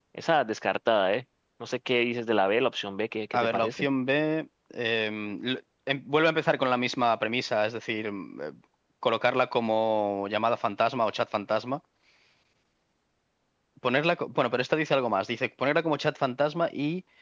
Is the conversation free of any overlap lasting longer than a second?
Yes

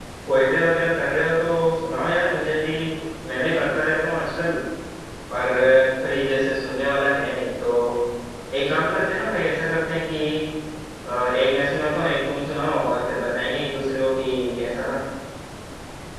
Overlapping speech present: No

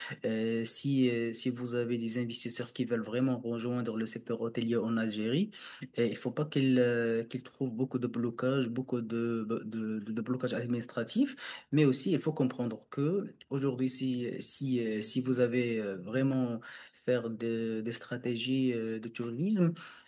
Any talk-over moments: No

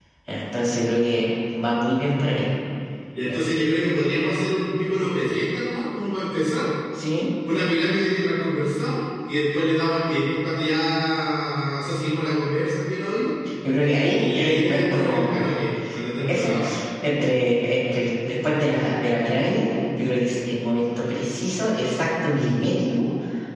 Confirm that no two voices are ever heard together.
No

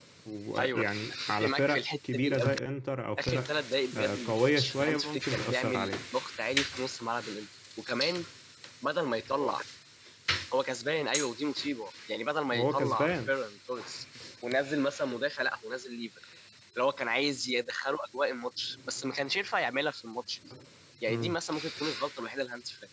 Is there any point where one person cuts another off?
Yes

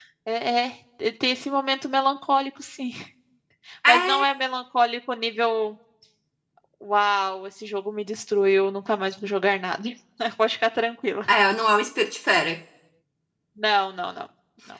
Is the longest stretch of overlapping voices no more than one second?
Yes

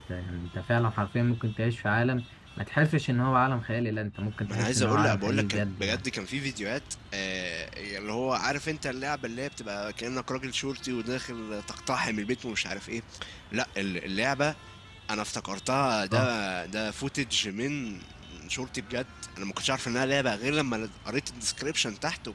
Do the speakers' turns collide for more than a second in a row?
Yes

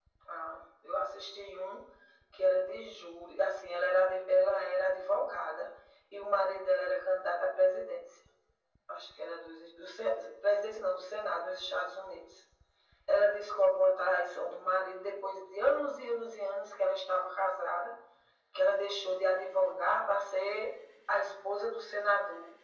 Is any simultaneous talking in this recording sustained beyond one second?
No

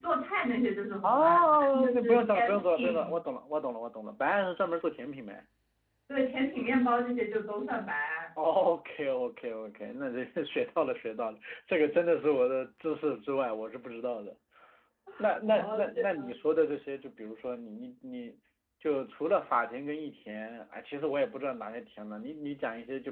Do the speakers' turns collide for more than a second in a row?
Yes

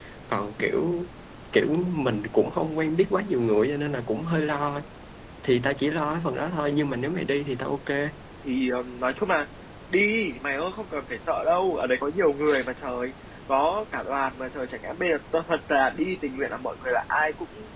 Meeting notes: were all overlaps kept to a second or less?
Yes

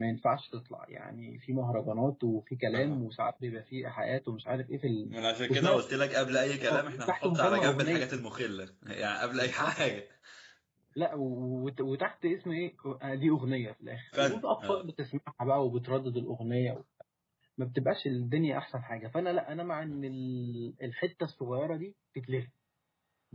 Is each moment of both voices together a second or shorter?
No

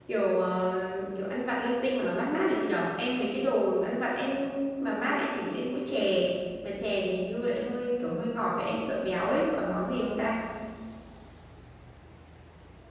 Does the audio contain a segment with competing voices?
No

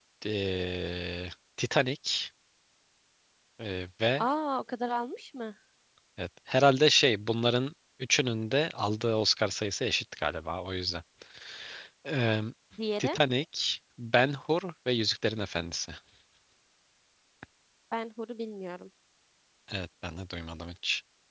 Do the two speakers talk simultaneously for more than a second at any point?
No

